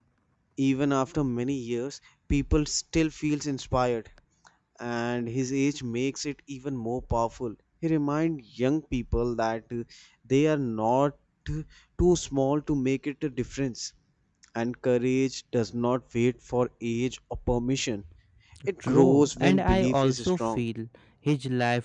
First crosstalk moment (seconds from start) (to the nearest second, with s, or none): 19 s